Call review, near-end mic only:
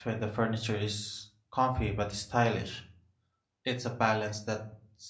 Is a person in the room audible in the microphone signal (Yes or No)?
Yes